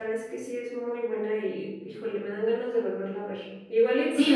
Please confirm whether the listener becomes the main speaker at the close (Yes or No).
Yes